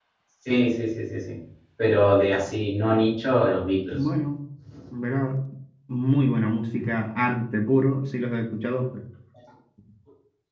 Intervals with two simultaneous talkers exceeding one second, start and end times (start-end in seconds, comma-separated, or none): none